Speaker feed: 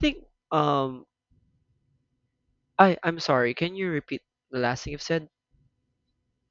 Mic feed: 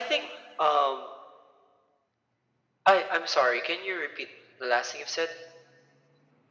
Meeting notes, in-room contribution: none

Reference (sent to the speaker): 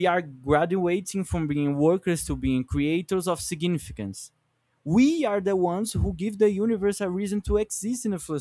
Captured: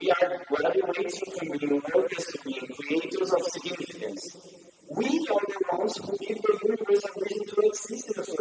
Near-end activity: none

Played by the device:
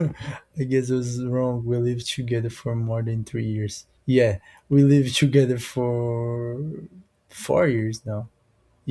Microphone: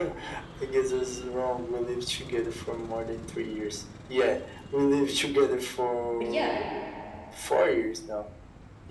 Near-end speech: present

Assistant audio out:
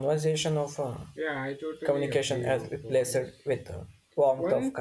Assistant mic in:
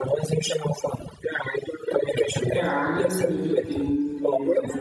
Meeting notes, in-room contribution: present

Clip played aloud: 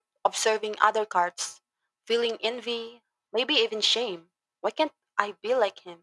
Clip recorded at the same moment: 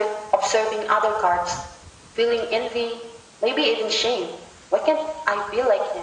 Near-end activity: none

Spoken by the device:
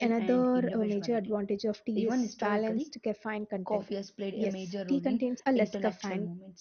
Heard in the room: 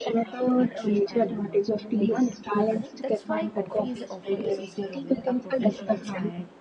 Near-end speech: present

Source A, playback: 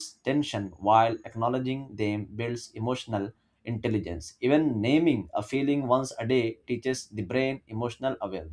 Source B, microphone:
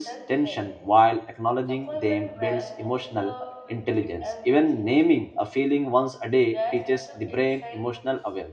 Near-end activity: present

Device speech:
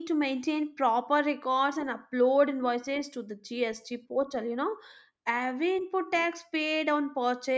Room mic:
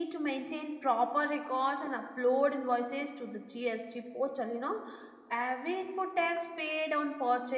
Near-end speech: none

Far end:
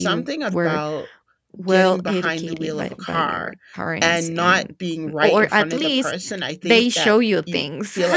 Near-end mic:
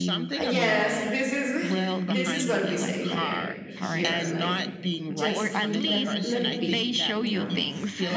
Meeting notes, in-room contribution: present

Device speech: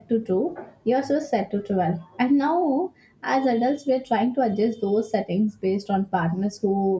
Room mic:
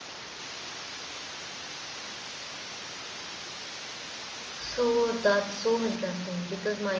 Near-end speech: present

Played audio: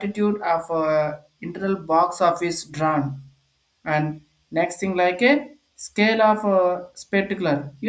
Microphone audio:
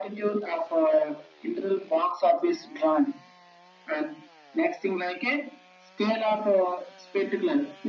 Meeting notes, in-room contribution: none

